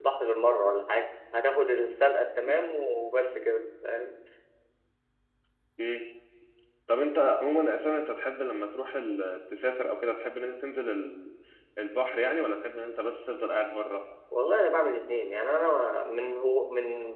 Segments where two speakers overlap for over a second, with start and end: none

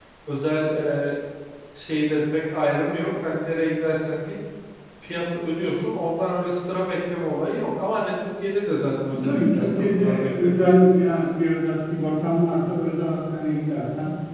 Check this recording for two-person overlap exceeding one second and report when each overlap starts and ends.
9.1-10.7

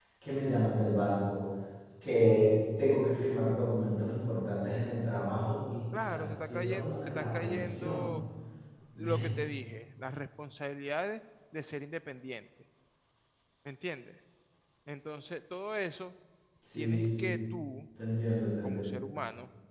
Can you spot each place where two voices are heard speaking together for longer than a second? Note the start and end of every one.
5.9-8.2

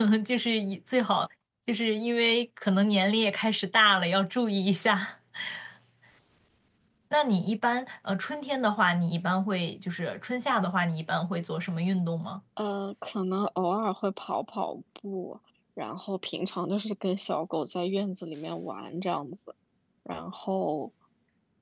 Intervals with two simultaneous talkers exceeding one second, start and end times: none

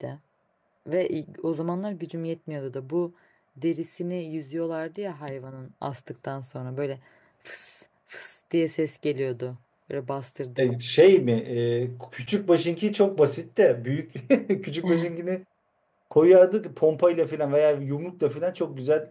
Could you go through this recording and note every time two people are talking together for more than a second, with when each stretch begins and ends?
none

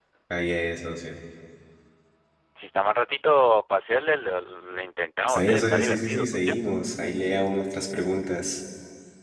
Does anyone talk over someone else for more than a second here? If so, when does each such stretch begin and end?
5.3-6.5

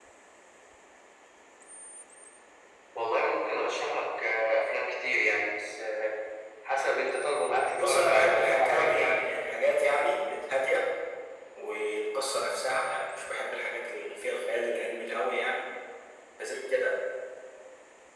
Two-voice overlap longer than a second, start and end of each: 7.8-9.2

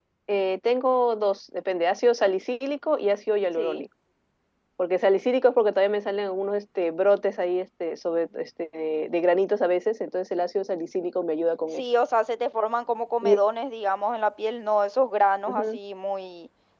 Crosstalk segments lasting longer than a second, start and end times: none

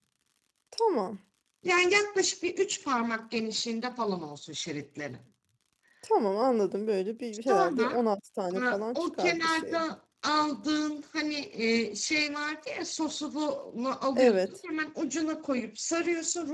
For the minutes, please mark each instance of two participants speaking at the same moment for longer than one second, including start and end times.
8.5-9.8

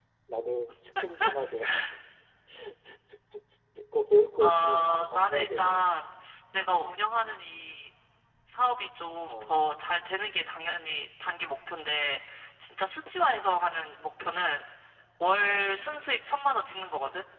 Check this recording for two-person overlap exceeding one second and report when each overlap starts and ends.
4.4-5.8

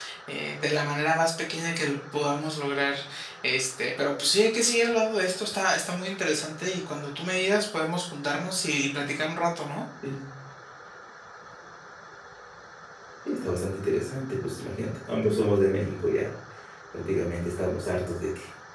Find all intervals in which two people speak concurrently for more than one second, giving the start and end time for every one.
none

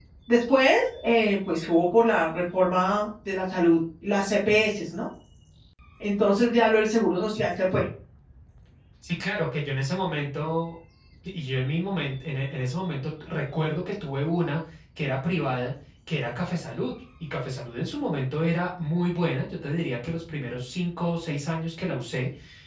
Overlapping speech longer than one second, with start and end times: none

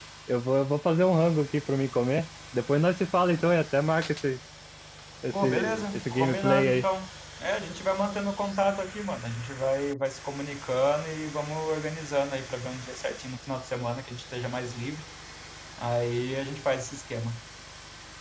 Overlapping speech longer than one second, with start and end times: 5.4-6.8

